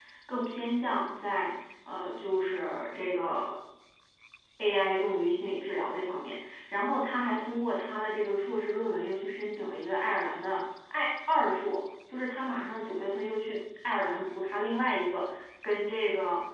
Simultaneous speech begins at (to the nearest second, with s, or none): none